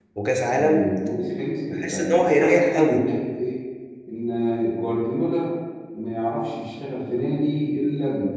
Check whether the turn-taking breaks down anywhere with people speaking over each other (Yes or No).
Yes